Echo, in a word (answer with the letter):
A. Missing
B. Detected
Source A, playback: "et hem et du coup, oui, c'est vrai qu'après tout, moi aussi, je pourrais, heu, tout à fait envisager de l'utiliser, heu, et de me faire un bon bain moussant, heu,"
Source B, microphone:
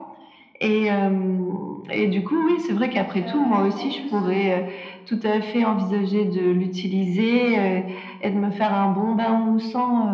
B